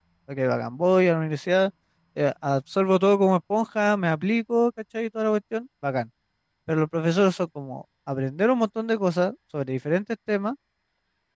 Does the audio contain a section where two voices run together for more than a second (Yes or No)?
No